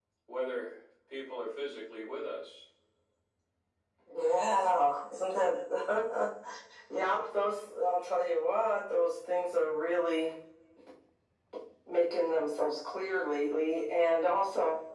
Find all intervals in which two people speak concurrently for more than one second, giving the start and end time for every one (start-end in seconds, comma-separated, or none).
none